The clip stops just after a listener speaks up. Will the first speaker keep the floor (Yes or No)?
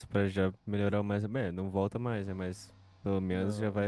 Yes